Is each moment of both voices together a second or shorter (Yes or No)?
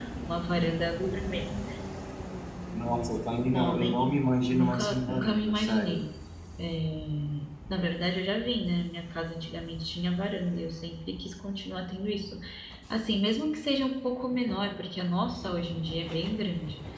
No